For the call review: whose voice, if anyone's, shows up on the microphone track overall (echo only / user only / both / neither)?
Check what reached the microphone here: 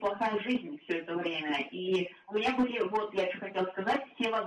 echo only